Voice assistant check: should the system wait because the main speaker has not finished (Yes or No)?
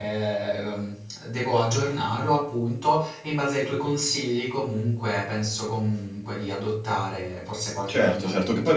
No